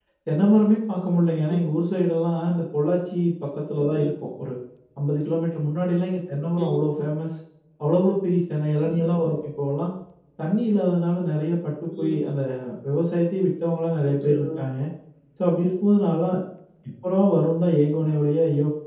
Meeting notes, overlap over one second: none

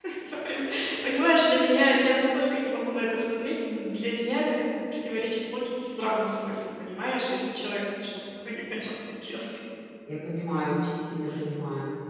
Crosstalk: none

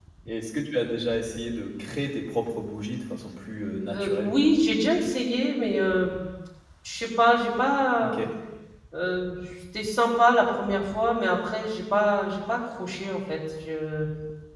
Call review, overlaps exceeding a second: none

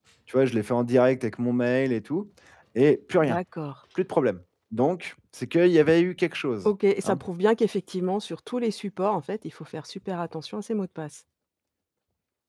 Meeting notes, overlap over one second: none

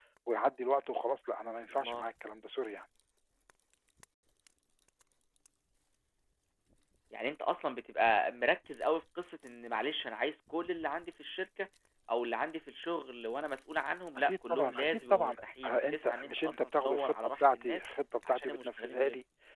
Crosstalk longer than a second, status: present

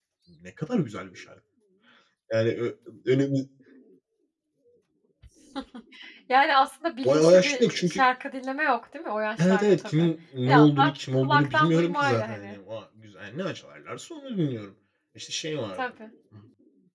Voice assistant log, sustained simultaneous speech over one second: present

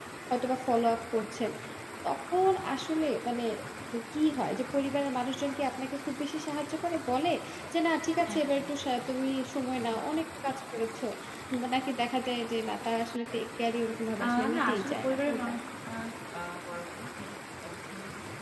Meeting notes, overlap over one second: present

